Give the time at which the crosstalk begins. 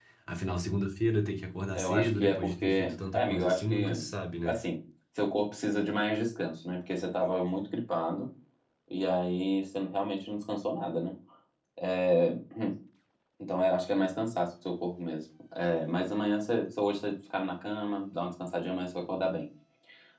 1.7 s

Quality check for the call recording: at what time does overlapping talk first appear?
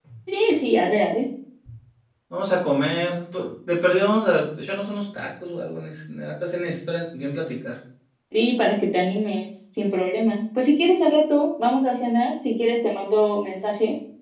none

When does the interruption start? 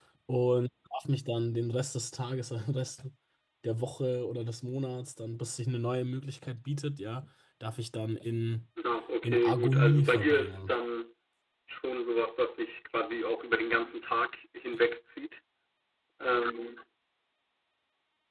9.2 s

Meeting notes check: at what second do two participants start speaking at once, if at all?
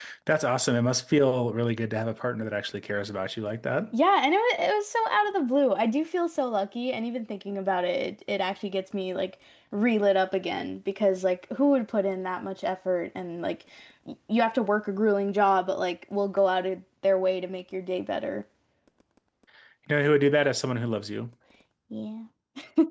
none

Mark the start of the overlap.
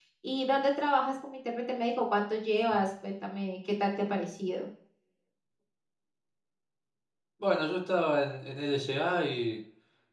none

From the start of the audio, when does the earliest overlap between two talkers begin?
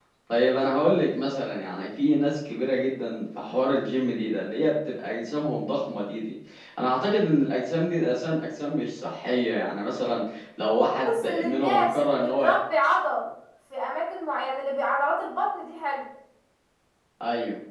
11.0 s

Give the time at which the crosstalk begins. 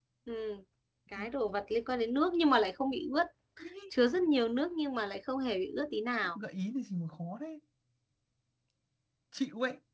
none

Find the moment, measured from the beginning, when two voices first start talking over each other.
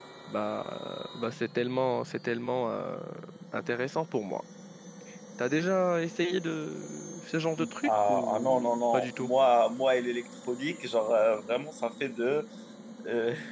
7.8 s

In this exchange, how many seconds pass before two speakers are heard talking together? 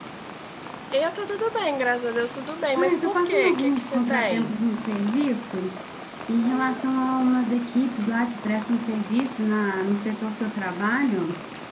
2.8 s

